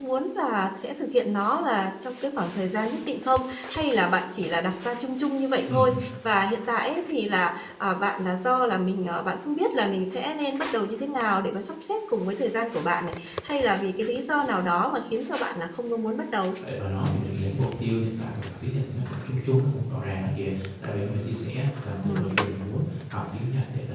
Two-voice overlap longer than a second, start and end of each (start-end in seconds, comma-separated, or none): none